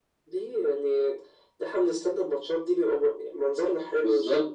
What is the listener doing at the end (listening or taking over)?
taking over